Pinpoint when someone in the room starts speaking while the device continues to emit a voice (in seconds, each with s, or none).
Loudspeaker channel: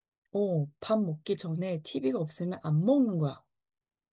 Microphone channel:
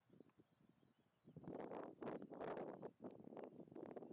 none